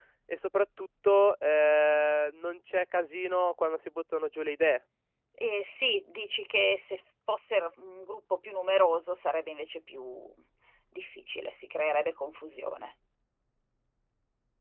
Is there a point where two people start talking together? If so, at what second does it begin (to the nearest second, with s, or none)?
none